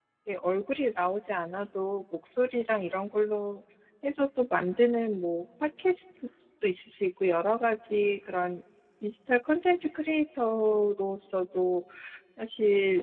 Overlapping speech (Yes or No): No